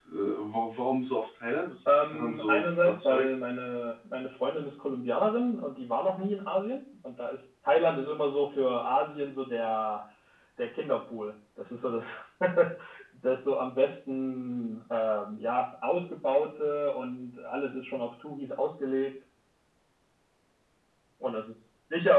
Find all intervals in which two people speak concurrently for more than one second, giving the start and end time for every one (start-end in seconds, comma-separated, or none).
1.9-3.3